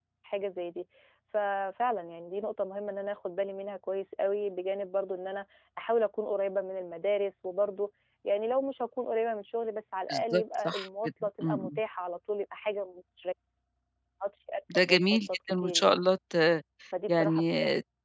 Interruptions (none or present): present